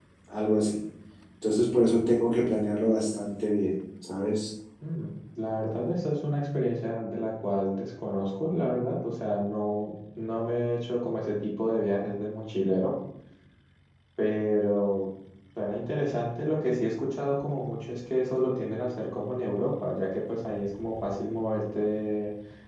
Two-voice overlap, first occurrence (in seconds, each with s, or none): none